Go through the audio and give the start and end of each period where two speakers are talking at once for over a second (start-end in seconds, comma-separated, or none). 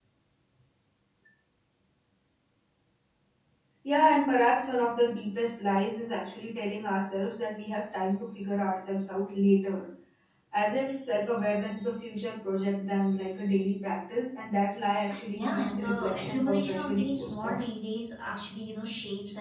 15.3-17.6